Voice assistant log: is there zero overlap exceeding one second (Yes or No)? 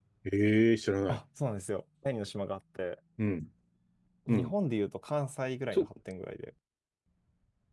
Yes